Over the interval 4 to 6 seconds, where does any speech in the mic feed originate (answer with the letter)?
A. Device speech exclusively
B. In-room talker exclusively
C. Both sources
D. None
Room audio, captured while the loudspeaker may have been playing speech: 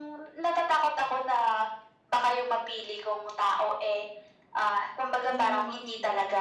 C